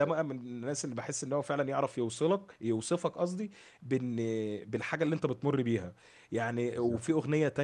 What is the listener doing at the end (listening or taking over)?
listening